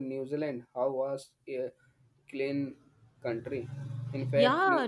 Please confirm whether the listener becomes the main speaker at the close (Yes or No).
Yes